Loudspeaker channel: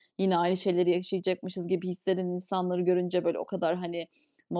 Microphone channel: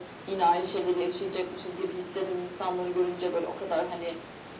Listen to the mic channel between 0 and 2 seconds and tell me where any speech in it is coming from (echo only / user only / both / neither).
echo only